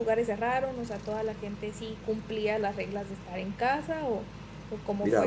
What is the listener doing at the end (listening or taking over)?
taking over